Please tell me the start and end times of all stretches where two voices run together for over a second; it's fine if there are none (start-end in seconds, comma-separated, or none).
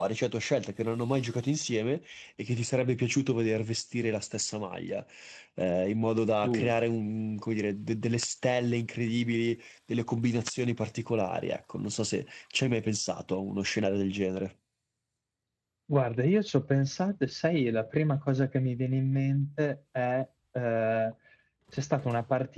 none